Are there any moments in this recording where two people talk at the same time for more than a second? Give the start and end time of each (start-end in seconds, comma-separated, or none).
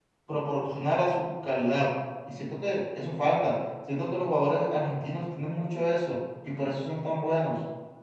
none